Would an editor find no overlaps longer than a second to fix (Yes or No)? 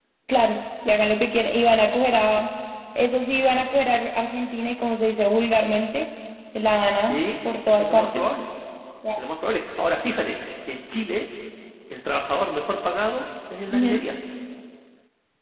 Yes